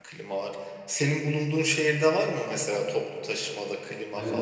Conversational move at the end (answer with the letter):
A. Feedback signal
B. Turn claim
B